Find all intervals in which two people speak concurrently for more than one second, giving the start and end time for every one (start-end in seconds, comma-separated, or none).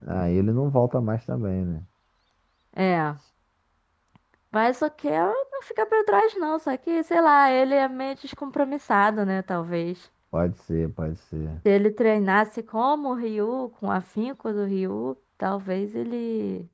none